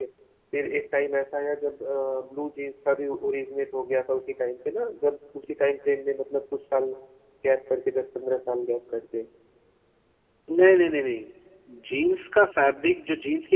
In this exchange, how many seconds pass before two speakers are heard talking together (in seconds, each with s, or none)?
none